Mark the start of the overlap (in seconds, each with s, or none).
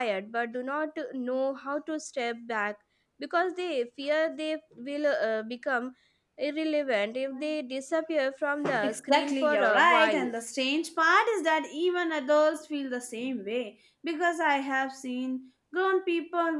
8.8 s